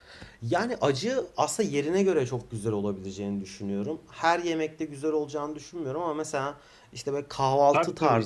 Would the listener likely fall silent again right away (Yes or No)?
Yes